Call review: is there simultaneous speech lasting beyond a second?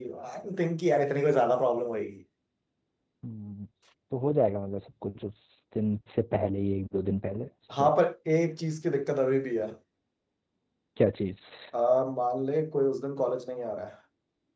No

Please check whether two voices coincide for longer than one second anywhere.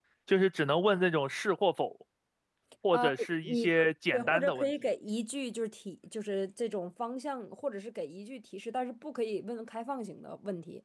Yes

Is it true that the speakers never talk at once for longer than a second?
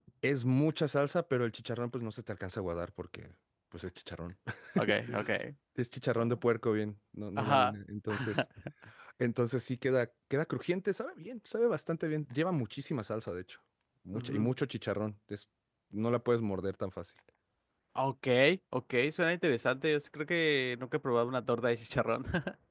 Yes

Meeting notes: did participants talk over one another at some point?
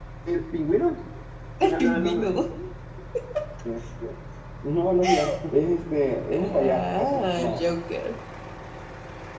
Yes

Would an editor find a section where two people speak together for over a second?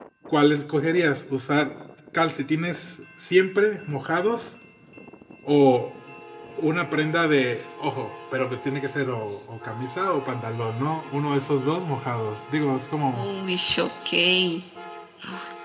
No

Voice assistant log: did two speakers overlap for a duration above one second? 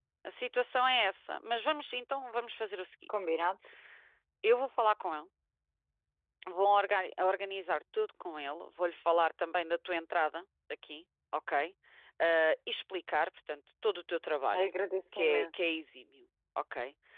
No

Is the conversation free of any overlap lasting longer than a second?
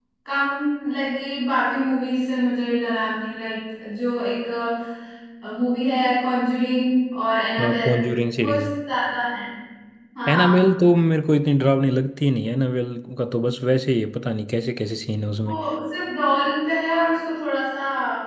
Yes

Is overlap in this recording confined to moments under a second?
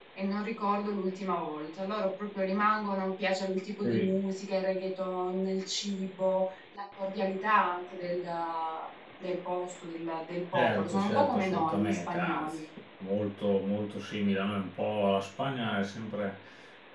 No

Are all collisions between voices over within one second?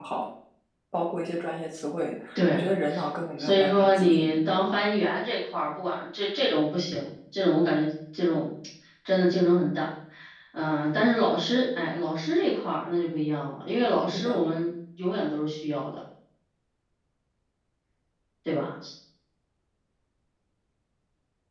No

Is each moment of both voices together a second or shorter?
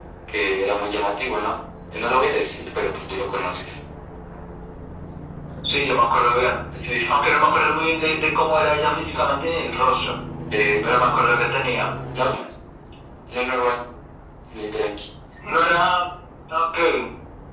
Yes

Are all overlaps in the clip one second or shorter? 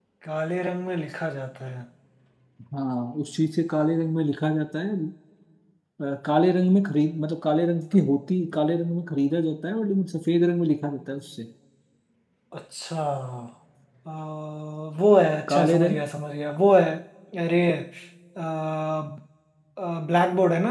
Yes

